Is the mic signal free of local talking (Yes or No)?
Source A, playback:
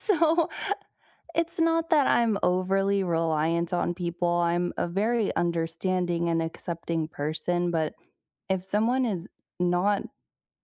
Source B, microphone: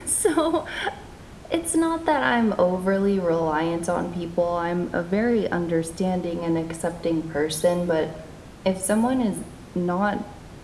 Yes